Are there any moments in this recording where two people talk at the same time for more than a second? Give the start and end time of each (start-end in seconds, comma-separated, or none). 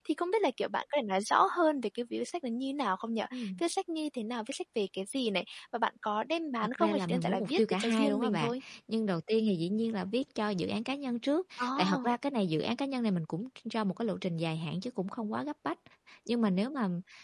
6.8-8.5